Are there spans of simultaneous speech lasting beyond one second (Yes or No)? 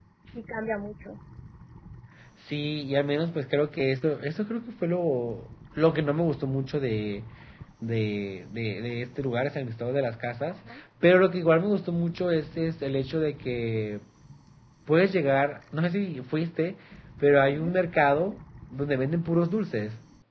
No